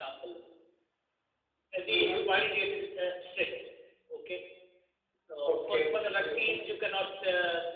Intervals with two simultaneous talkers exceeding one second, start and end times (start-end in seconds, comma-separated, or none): 5.4-6.7